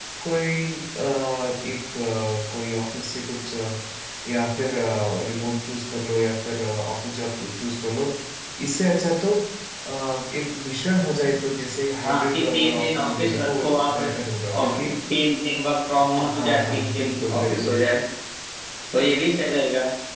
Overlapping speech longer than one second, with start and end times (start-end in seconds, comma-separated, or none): 12.0-13.9, 16.2-17.8